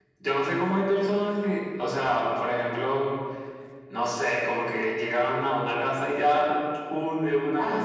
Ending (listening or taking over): taking over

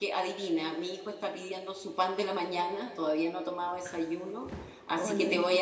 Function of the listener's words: listening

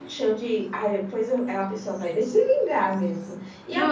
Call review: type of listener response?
listening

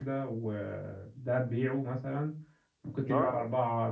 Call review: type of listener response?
listening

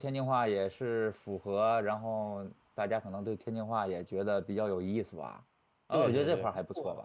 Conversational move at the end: taking over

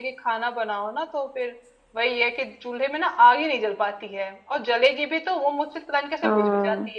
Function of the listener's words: listening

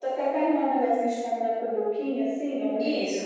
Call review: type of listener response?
taking over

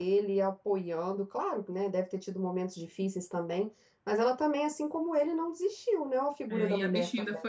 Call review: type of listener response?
taking over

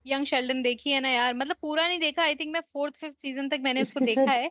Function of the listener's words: taking over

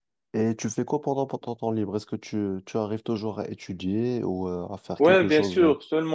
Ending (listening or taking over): taking over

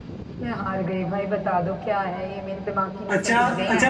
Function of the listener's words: taking over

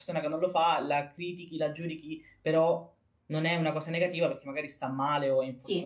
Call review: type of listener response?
taking over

